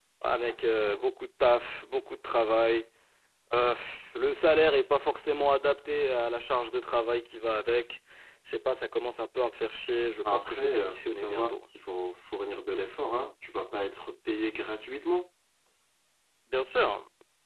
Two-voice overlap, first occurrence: 10.2 s

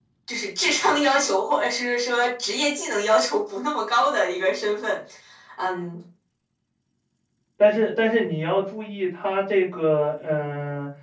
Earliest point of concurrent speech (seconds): none

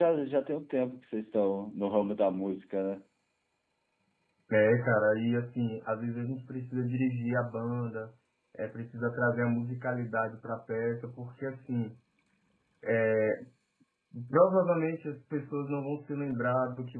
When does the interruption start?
none

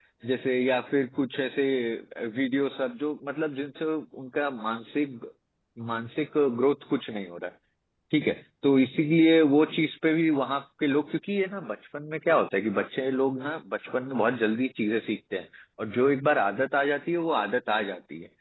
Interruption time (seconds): none

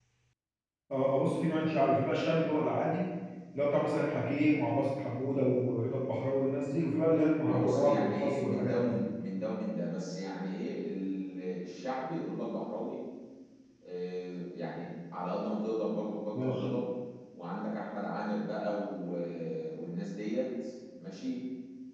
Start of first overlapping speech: 7.5 s

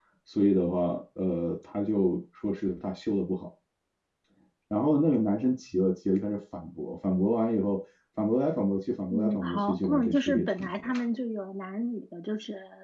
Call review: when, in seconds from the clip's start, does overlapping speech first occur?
9.1 s

